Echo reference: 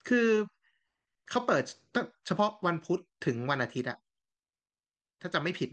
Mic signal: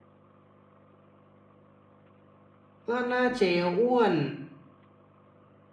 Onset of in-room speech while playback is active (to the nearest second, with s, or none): 3 s